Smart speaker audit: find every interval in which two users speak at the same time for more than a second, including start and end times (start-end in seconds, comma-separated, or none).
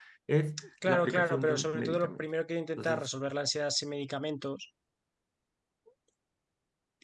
0.8-2.2